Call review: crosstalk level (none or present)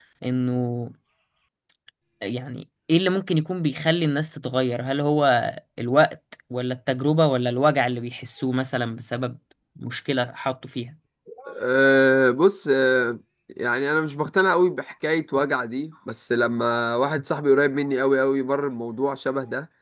none